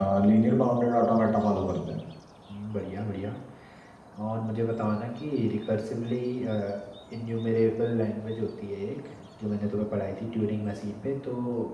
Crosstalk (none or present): none